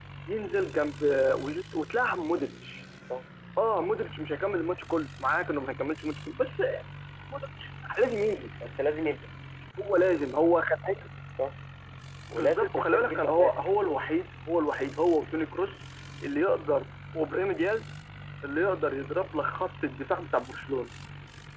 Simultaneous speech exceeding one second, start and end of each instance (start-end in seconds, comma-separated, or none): 12.3-13.7